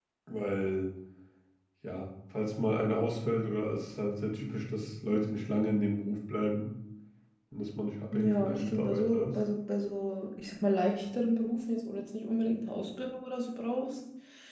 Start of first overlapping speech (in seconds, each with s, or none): 8.1 s